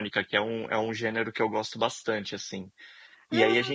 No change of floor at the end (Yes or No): Yes